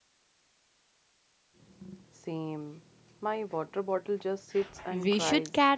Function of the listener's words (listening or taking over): taking over